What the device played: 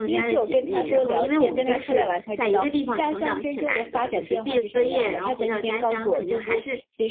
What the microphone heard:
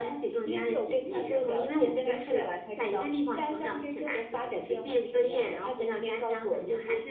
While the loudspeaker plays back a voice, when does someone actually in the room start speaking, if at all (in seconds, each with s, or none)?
none